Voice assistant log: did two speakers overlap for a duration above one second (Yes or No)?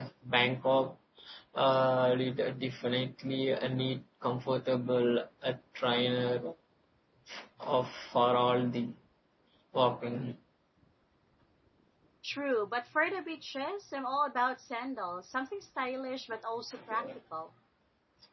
No